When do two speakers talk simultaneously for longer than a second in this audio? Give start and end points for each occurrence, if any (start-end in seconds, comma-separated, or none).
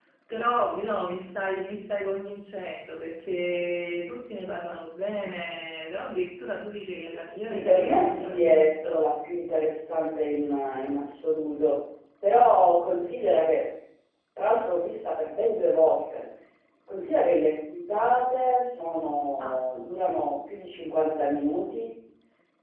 7.4-9.0